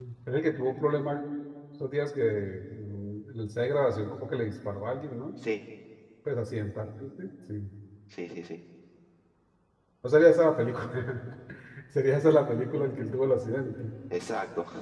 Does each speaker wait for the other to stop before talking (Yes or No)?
Yes